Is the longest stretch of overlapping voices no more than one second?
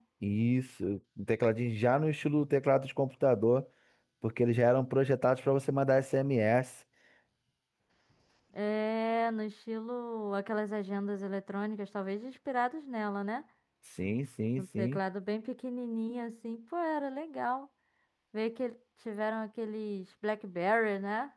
Yes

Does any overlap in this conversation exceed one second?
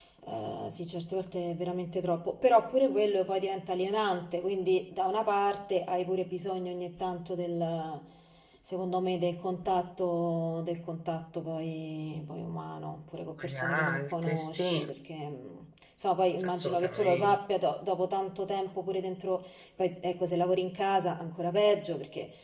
Yes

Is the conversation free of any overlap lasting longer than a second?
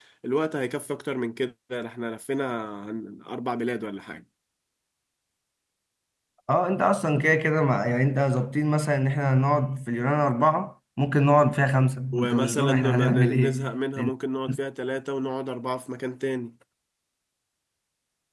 No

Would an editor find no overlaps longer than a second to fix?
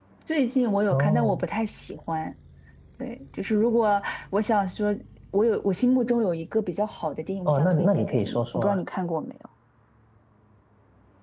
No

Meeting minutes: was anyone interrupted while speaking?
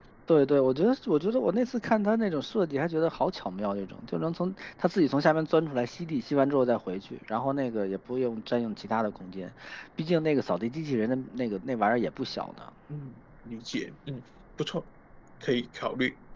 No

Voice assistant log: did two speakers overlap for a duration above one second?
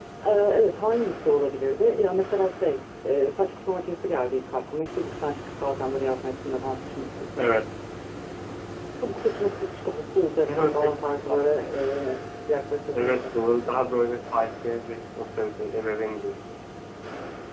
No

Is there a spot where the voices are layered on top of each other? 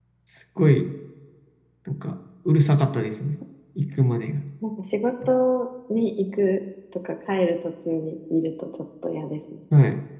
No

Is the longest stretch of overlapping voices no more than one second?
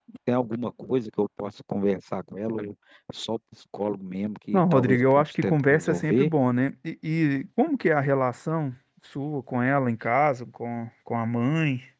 No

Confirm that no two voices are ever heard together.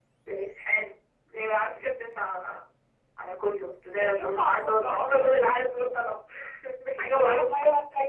No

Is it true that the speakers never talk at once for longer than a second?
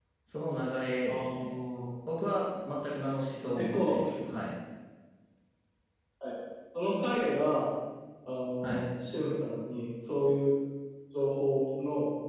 Yes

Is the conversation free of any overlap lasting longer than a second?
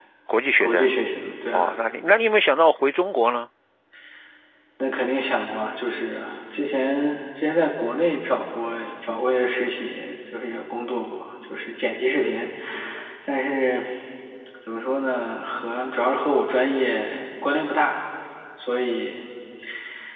Yes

